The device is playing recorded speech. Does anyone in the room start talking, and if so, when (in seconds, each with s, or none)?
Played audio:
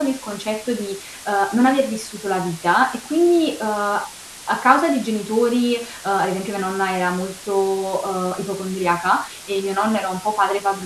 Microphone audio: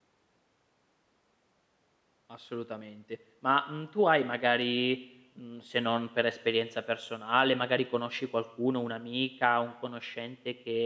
2.3 s